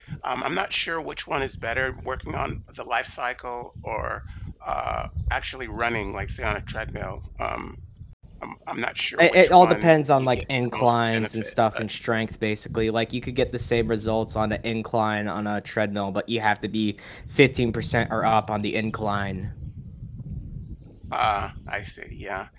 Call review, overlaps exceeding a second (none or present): present